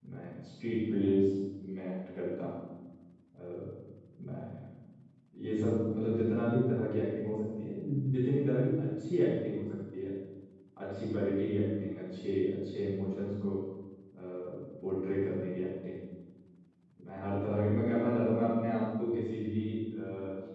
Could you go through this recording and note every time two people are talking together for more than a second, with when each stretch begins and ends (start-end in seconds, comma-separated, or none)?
none